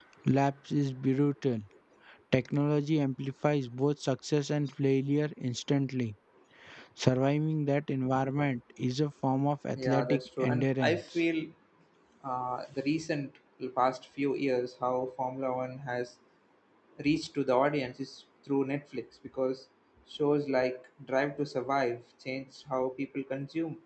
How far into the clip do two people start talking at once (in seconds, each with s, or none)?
9.8 s